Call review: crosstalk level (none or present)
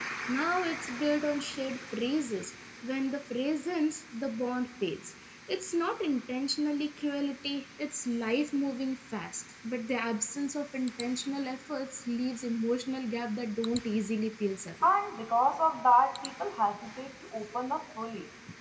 none